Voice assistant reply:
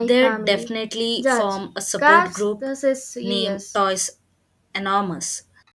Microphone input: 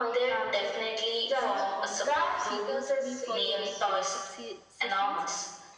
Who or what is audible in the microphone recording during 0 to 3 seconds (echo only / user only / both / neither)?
both